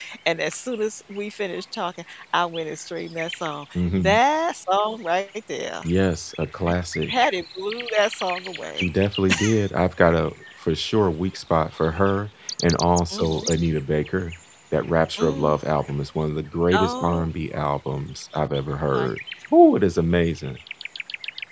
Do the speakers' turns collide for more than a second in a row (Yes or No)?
No